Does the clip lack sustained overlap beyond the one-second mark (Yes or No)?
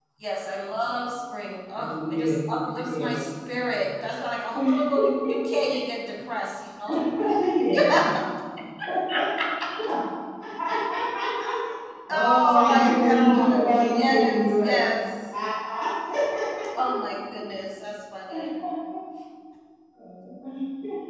No